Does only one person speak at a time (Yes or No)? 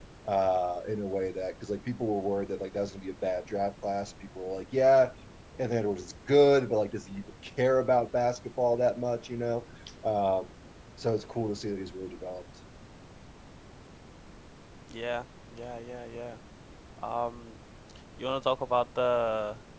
Yes